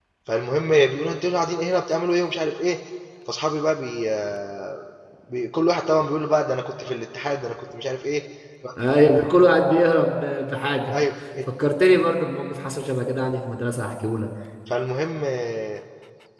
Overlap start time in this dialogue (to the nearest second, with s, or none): none